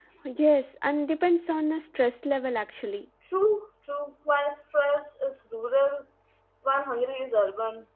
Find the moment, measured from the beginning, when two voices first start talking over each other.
none

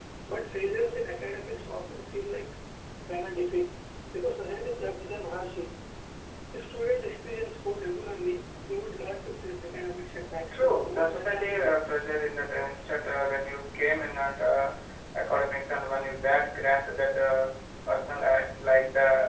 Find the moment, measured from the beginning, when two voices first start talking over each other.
10.5 s

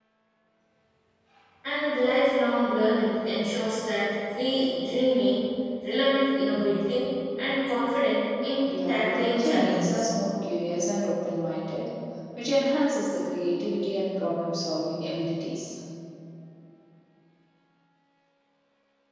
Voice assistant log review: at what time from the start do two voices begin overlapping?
8.7 s

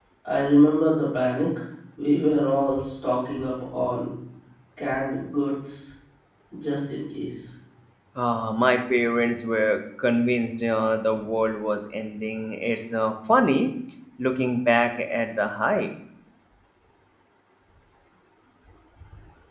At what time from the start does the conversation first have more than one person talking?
none

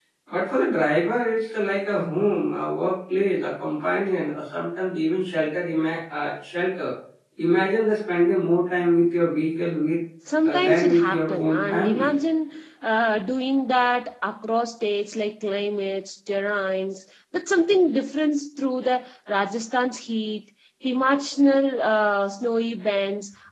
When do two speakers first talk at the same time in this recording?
10.4 s

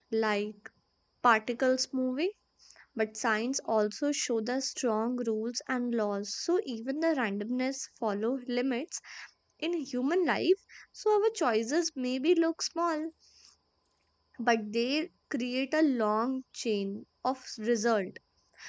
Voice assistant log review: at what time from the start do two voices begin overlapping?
none

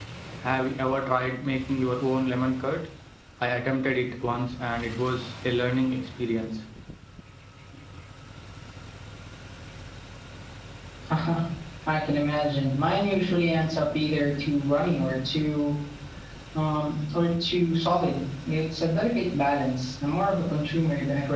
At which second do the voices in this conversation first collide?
none

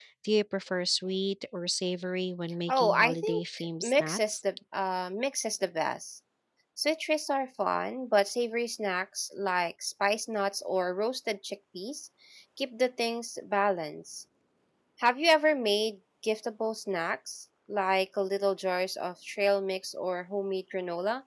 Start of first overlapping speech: 2.7 s

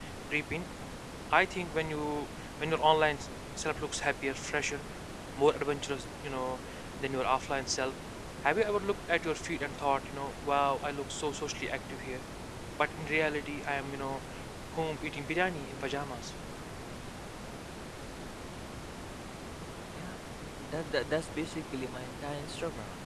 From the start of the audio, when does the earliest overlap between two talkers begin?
none

